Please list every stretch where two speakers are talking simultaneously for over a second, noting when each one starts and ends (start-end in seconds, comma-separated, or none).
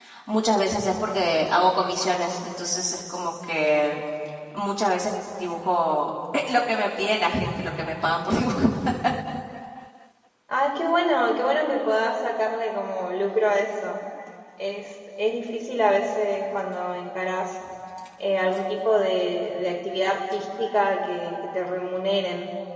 none